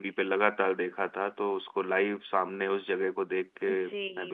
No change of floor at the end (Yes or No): No